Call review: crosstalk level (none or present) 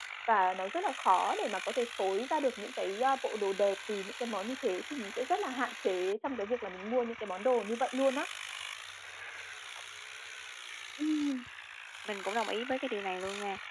none